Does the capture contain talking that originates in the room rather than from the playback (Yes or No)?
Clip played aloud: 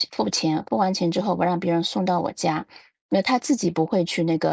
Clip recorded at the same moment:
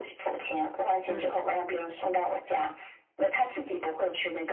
Yes